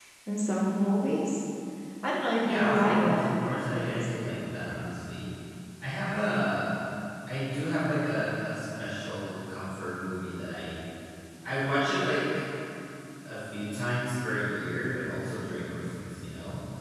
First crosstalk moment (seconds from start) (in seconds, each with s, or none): 2.4 s